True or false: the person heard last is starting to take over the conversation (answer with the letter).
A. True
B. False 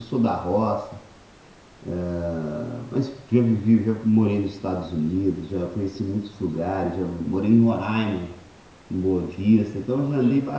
B